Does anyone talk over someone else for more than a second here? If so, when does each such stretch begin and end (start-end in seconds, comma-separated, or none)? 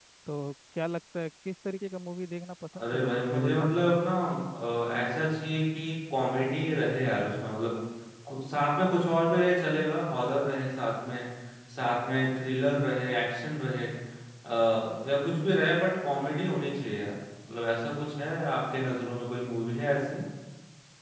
2.8-4.0